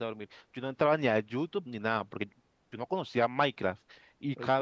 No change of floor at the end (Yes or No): Yes